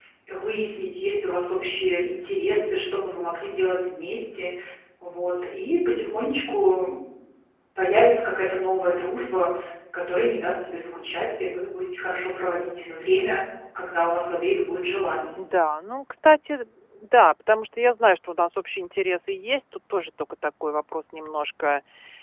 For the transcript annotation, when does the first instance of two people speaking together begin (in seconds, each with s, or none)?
none